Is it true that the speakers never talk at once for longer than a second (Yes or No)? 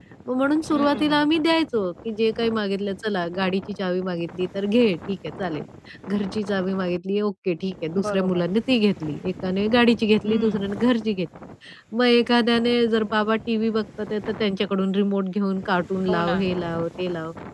Yes